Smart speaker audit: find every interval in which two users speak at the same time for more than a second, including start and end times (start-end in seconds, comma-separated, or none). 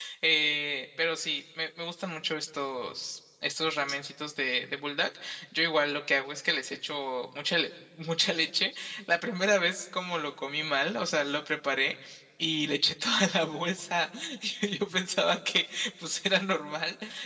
none